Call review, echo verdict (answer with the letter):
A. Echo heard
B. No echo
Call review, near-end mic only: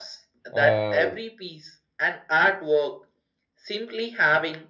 A